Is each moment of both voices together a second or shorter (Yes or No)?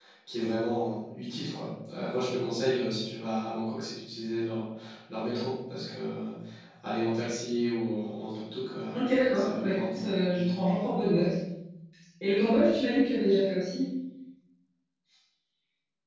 No